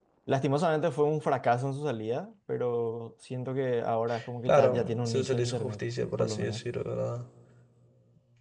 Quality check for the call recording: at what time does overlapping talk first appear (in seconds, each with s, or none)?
4.5 s